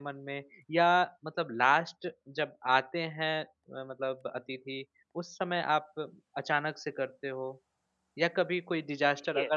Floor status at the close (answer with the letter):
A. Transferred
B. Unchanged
B